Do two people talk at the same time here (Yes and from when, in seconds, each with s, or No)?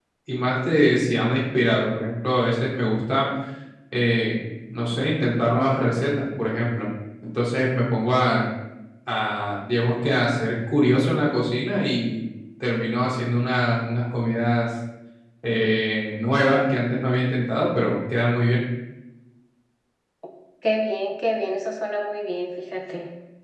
No